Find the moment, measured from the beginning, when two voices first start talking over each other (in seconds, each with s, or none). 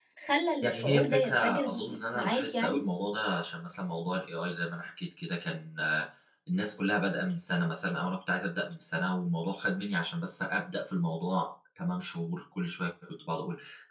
0.6 s